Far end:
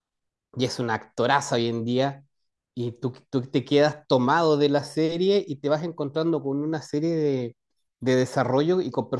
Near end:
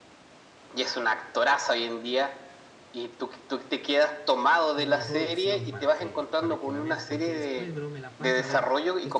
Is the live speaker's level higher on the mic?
No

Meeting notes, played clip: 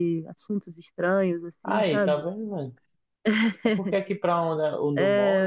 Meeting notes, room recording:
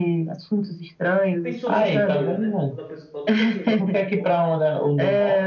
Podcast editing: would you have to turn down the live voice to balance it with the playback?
No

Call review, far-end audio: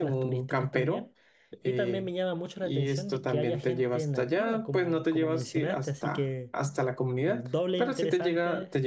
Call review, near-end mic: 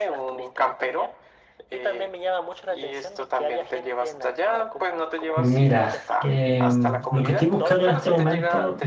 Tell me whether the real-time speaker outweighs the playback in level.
Yes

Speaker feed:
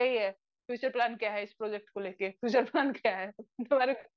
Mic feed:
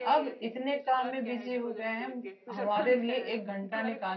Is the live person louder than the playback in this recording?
Yes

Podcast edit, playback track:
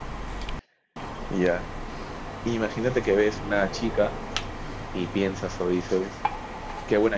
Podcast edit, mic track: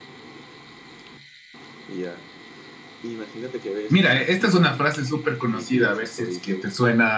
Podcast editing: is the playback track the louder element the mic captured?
No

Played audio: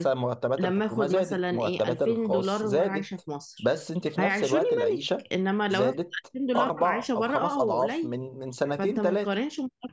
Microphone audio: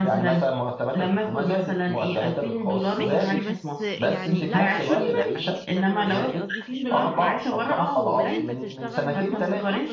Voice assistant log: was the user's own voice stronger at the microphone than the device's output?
No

